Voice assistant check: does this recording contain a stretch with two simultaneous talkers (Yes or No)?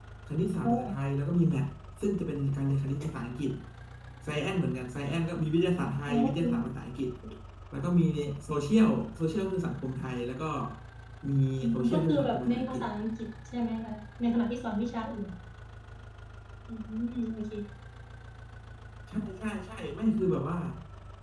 Yes